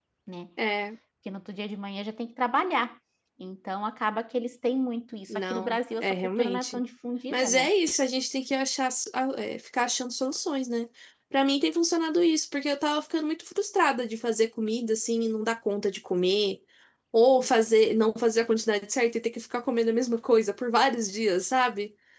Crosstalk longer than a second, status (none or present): present